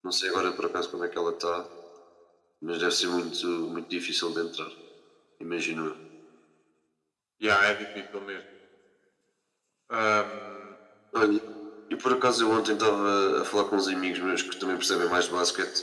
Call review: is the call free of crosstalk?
Yes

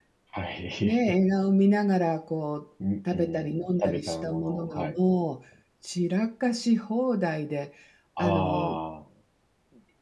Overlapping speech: Yes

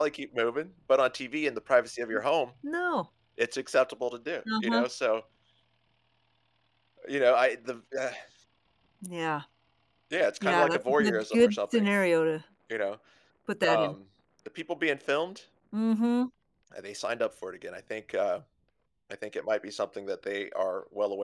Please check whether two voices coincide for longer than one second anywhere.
Yes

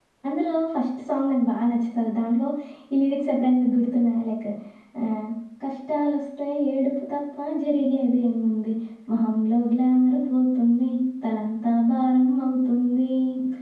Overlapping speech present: No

